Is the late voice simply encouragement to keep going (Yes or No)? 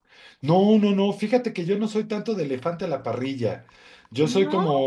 Yes